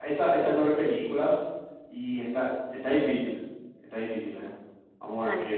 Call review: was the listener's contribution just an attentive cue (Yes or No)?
Yes